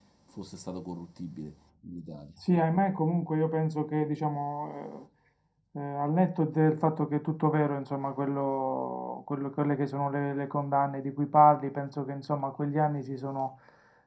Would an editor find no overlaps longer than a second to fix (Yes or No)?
Yes